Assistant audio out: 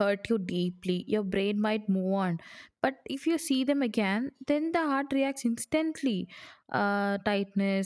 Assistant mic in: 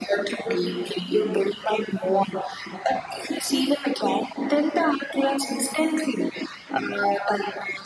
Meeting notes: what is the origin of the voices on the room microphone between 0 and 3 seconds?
echo only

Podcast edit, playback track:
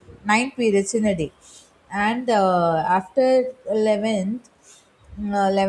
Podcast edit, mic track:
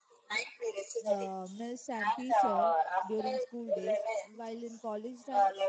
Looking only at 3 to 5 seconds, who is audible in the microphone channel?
both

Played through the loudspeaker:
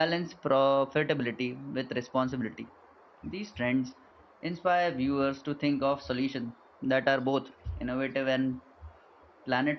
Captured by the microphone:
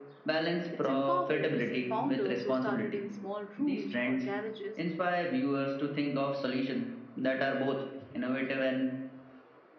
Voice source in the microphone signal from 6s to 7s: echo only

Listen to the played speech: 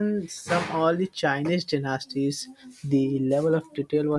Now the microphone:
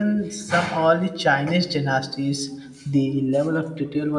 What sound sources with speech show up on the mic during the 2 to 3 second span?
echo only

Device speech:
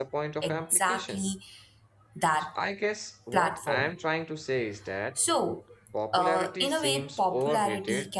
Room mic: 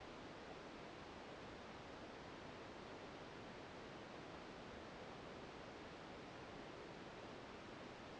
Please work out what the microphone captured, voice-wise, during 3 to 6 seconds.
neither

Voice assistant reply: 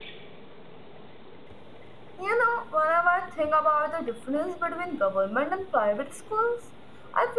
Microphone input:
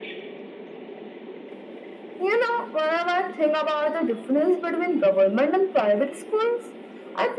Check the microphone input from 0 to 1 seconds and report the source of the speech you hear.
neither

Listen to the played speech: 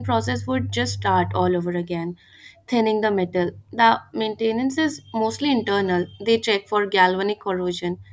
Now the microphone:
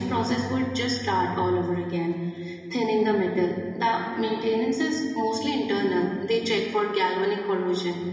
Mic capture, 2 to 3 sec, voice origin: echo only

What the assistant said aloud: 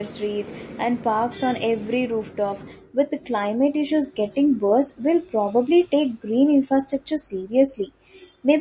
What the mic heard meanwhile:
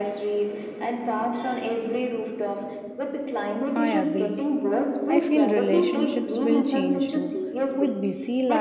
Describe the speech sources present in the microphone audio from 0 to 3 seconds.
echo only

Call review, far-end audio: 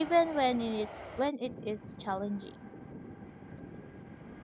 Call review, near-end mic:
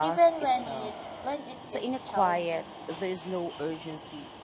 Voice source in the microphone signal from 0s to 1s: both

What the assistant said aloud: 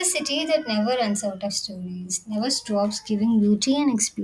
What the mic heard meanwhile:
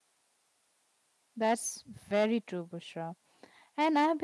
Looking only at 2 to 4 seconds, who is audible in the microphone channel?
user only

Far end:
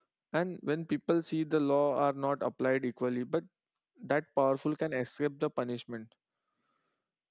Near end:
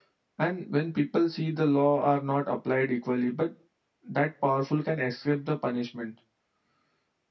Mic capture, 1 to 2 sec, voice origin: echo only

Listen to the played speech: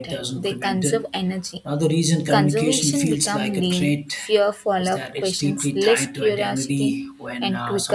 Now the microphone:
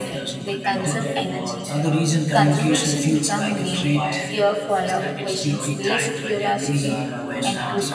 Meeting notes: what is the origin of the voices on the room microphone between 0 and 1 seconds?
both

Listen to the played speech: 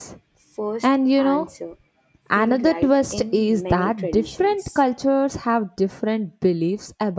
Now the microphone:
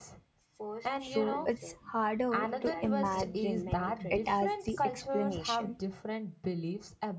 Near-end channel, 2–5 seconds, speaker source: both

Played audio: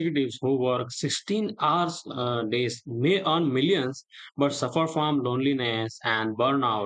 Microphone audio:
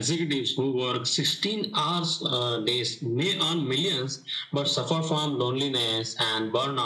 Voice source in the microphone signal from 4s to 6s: echo only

